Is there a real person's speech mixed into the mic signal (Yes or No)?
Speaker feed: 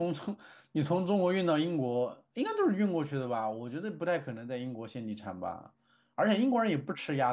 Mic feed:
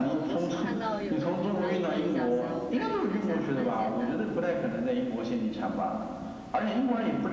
Yes